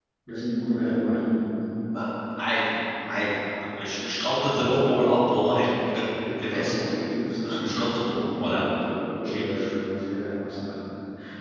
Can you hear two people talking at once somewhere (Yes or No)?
Yes